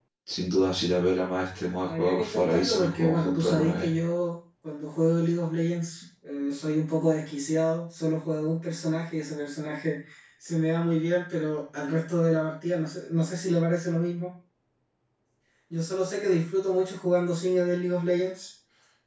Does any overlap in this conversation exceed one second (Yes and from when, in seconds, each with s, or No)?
Yes, from 1.9 s